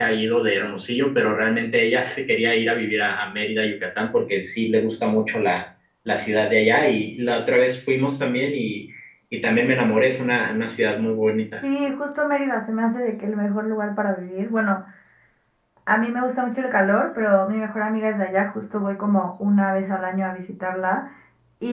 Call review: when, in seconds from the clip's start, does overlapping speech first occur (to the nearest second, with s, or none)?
none